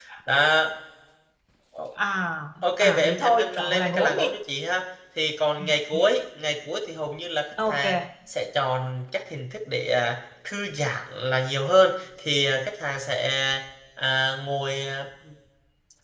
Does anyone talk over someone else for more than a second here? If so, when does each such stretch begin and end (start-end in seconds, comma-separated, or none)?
2.8-4.2